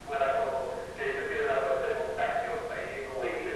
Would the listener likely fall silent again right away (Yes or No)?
No